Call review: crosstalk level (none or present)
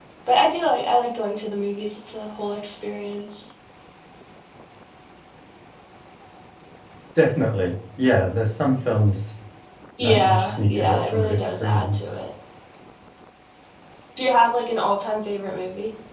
present